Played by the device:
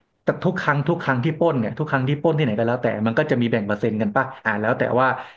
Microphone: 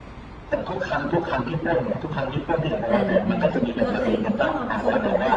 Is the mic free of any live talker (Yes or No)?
No